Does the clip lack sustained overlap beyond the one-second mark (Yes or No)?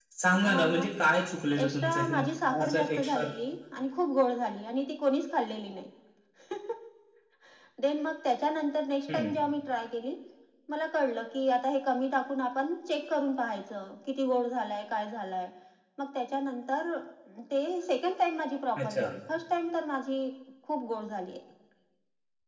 No